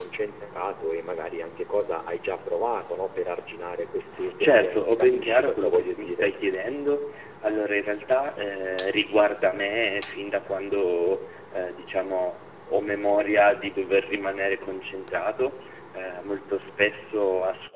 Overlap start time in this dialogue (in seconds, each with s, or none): 4.2 s